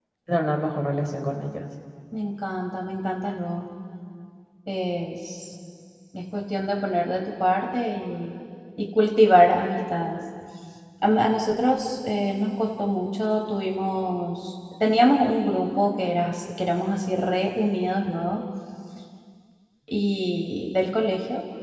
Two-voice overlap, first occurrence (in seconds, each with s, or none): none